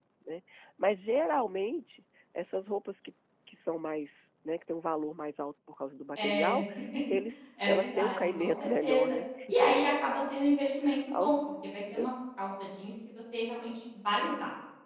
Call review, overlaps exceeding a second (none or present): present